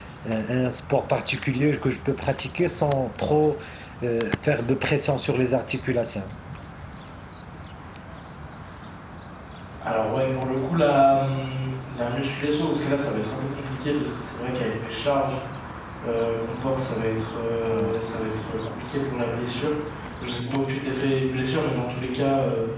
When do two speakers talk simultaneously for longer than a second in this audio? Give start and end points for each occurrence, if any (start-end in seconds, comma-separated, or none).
none